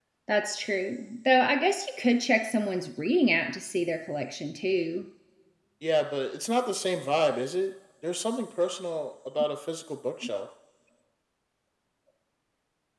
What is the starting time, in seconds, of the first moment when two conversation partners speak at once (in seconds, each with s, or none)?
none